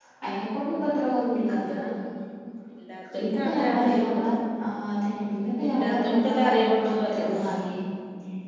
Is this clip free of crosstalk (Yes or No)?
No